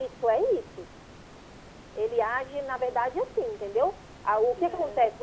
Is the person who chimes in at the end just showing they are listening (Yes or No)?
Yes